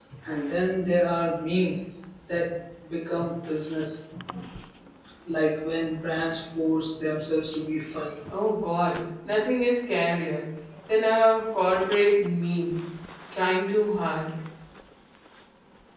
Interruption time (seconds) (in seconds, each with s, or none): none